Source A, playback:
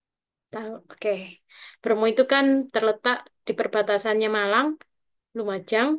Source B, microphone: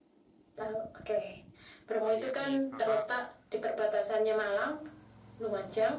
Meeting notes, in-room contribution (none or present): present